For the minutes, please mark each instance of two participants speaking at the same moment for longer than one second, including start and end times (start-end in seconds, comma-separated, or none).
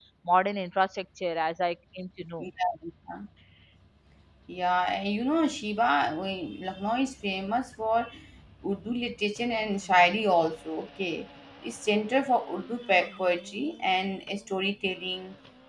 none